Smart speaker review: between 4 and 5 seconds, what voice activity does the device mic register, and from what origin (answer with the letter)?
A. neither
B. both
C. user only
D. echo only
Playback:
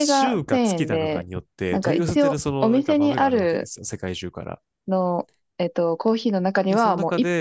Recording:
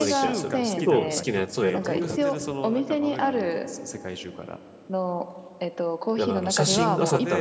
D